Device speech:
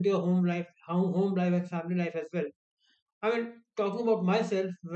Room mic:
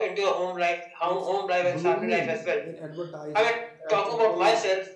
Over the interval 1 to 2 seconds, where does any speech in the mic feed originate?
both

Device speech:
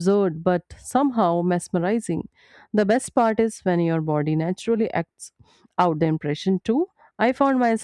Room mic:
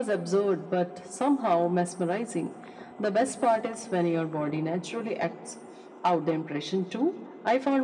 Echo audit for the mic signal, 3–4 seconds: echo only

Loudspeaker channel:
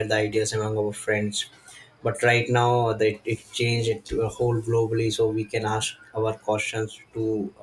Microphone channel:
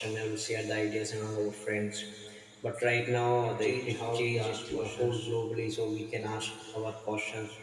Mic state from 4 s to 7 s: both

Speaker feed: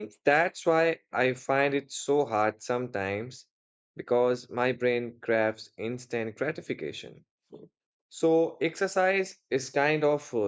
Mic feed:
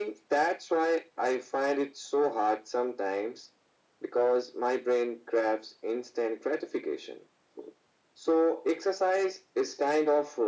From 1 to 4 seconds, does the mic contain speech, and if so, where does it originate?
echo only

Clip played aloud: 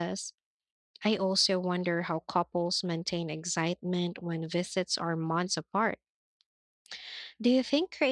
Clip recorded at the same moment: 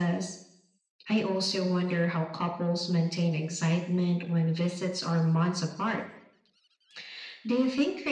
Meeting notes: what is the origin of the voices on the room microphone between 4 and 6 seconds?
echo only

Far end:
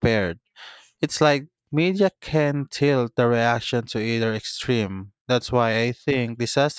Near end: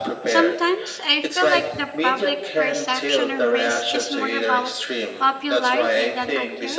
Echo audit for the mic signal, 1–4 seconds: both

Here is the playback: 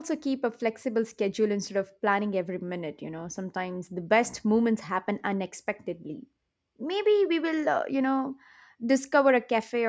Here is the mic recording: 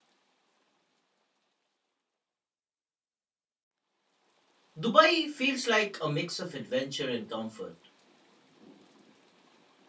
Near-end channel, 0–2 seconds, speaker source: neither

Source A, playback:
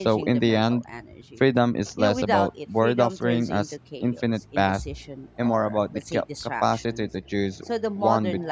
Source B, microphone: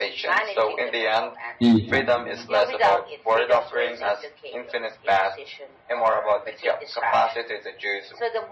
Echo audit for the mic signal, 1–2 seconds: both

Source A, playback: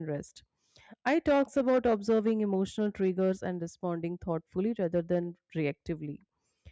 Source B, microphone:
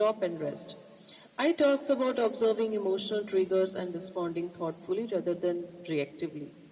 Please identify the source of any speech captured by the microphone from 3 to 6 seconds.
echo only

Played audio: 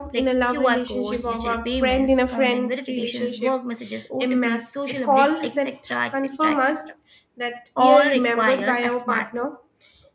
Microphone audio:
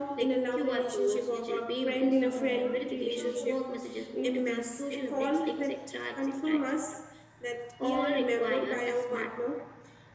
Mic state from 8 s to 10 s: echo only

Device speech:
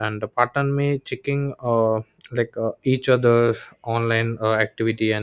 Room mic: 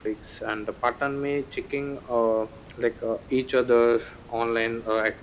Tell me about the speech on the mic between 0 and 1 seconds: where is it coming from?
echo only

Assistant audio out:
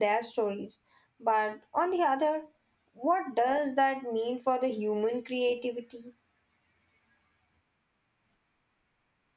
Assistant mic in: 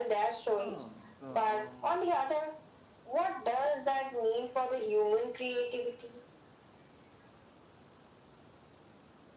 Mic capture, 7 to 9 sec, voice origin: neither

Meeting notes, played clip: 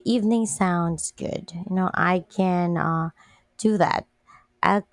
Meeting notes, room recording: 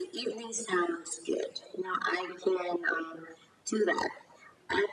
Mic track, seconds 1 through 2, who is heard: echo only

